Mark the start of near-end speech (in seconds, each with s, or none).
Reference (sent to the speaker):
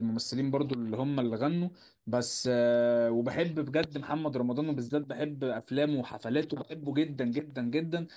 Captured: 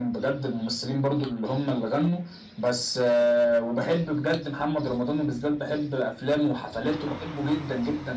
none